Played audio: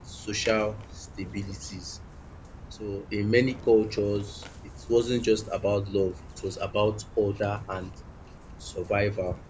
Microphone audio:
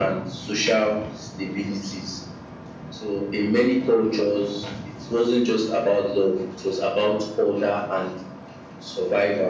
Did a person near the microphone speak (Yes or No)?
No